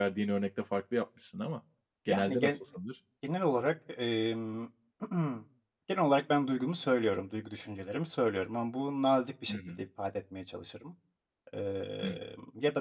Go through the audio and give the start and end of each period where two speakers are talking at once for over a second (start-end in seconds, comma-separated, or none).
none